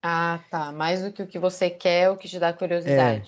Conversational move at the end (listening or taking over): taking over